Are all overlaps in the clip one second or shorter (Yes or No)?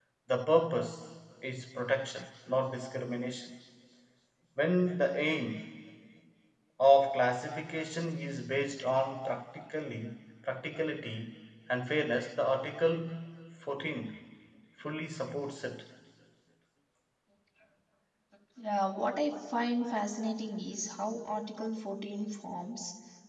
Yes